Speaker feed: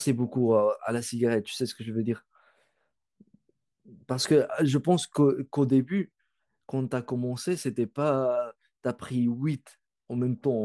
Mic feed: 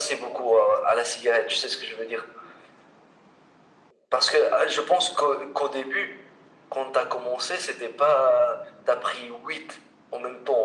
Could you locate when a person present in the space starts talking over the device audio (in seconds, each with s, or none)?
none